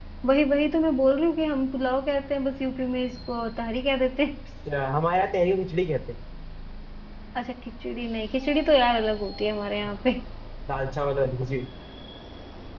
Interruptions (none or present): none